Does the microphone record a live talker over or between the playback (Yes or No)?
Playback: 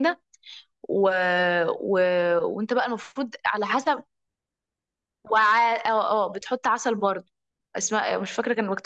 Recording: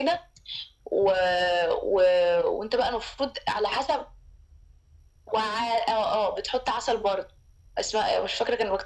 No